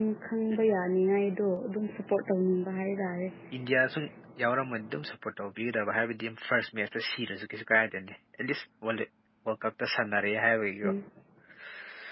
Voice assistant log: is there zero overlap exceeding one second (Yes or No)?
Yes